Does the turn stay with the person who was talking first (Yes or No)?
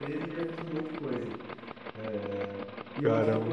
Yes